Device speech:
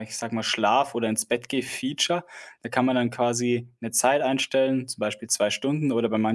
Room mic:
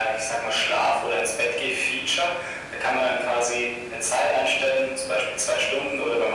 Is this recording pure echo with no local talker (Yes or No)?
Yes